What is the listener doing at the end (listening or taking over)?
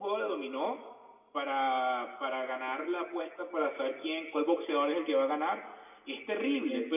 listening